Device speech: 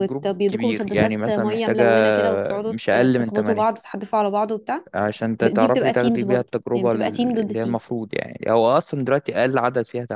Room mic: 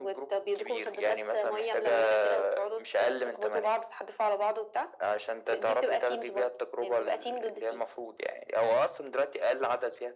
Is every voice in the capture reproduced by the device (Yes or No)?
Yes